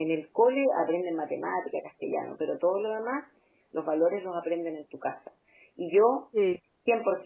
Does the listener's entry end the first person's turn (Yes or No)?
No